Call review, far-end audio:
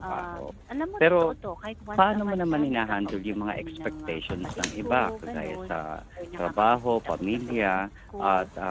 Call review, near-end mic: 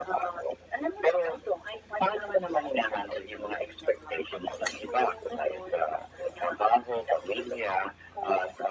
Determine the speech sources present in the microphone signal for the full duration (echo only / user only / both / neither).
echo only